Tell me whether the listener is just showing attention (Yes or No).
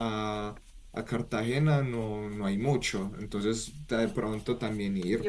No